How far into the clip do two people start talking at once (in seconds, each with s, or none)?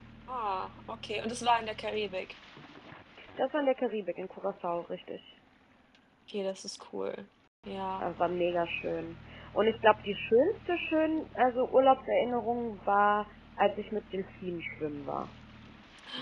none